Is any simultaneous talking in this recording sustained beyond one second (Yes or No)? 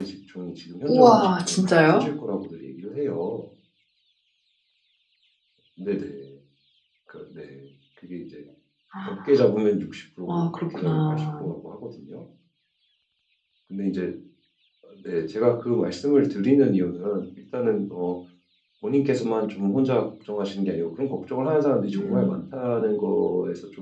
Yes